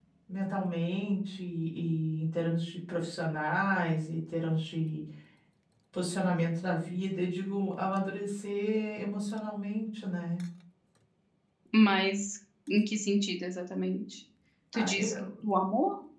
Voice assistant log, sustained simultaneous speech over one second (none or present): none